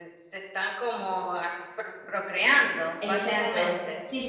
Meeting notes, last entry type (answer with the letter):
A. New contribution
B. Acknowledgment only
A